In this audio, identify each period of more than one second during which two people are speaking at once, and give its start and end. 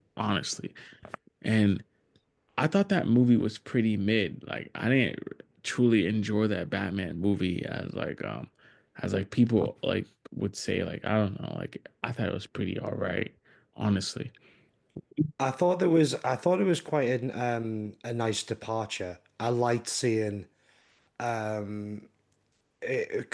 none

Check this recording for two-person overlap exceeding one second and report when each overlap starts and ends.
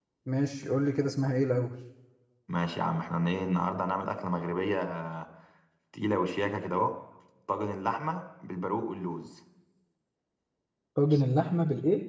none

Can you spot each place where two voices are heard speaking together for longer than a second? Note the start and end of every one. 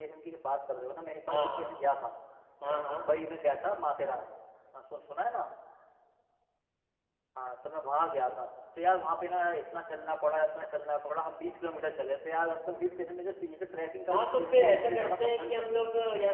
14.1-15.8

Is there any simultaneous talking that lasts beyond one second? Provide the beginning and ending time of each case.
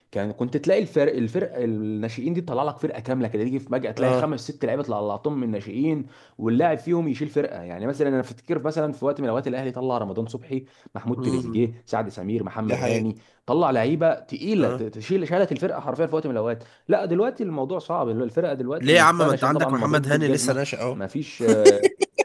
18.8-20.6

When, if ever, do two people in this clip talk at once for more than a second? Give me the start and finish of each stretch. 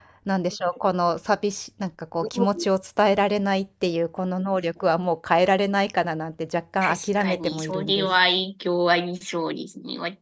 6.8-8.1

